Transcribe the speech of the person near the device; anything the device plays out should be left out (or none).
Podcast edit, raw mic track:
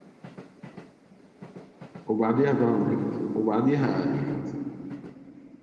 وبعديها ذا 100 وبعديها إليت